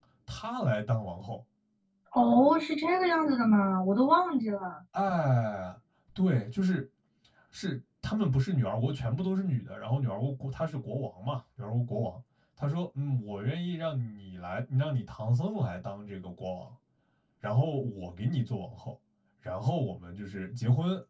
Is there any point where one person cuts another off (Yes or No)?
No